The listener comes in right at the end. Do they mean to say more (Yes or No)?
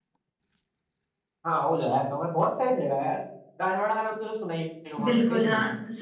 Yes